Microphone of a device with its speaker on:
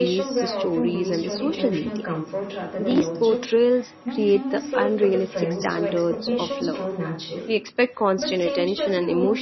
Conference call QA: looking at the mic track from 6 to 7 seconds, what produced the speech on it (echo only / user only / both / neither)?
both